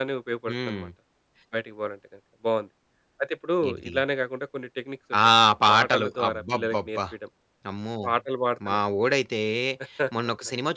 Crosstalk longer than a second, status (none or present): present